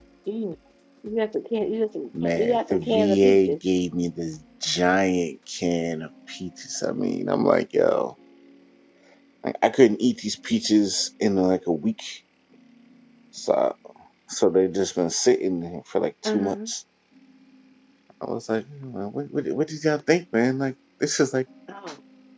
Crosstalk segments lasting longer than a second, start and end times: 2.2-3.6

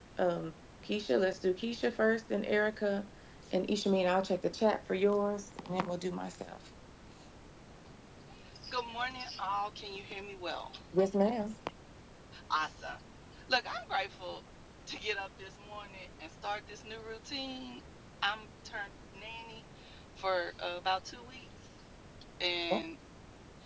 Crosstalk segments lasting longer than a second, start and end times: none

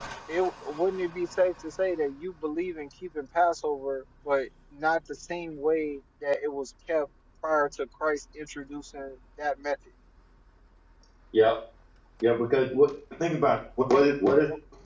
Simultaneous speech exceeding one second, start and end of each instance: none

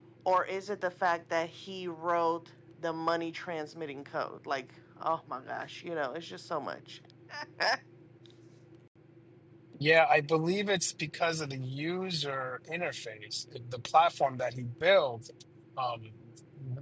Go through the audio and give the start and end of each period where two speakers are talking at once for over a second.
none

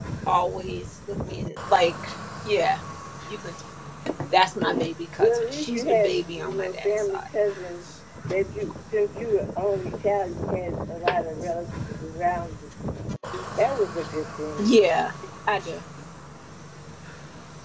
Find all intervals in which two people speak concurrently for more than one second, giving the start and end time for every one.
5.2-7.2

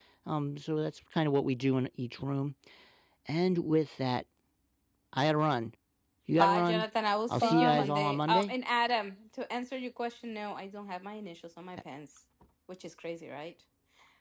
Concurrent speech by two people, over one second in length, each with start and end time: 7.3-8.5

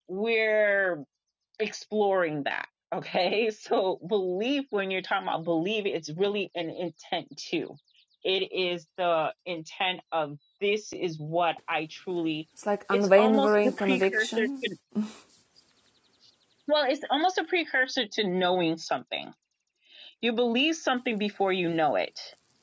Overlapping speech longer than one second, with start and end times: 12.9-14.5

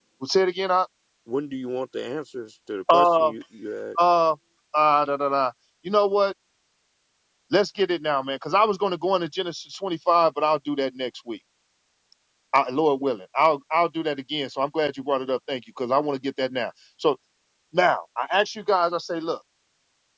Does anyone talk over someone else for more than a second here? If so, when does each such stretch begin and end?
none

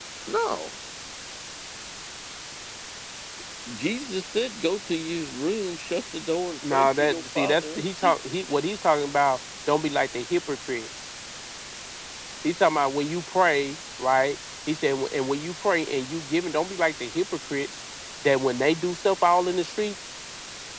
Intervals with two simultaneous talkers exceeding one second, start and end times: 6.7-8.1

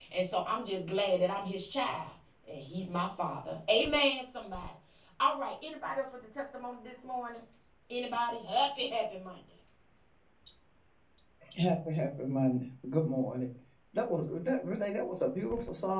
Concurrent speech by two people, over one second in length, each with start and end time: none

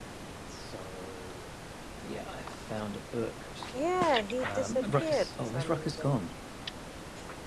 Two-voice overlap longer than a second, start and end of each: 4.4-6.1

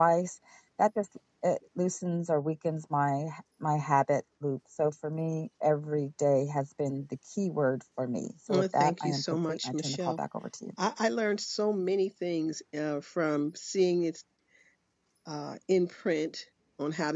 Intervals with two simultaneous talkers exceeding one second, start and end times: 8.5-10.2

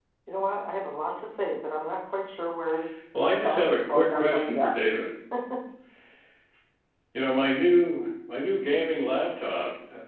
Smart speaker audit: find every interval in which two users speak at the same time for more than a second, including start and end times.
3.3-4.8

